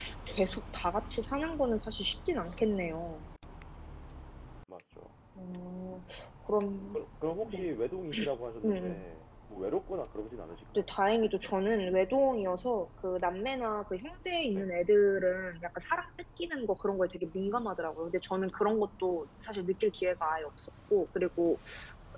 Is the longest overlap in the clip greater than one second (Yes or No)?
No